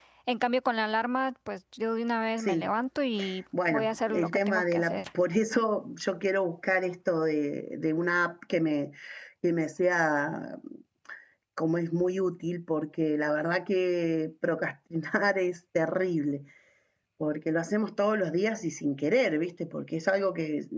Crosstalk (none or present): present